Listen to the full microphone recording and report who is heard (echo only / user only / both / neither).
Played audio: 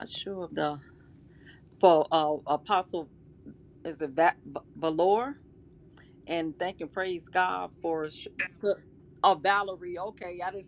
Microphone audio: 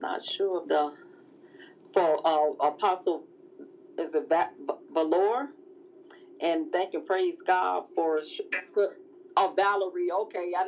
echo only